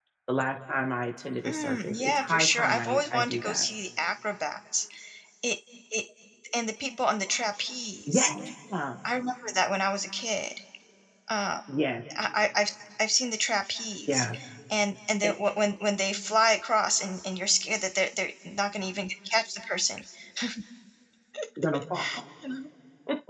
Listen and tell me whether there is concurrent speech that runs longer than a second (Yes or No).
Yes